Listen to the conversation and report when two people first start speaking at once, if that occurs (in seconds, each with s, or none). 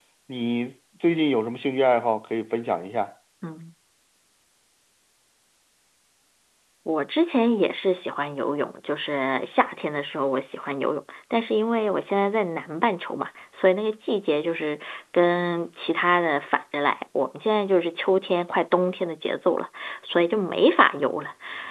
none